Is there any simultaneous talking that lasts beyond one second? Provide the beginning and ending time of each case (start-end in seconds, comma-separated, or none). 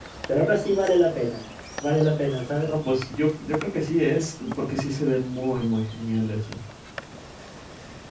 none